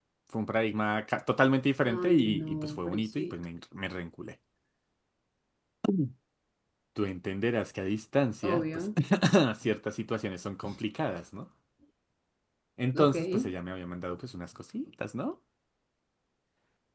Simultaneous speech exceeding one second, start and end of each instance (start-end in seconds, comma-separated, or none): 1.9-3.3